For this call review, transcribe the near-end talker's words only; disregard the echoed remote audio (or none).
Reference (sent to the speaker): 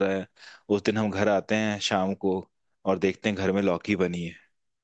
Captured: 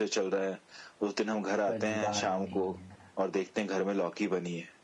पर जुबान नहीं है